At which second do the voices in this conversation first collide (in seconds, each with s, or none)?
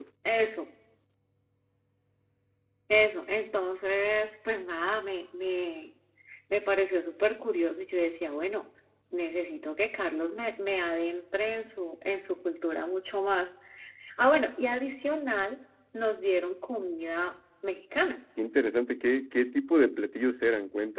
none